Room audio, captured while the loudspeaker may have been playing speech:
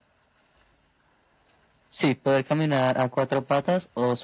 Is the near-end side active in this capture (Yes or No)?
No